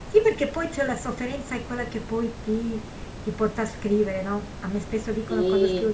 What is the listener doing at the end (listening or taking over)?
listening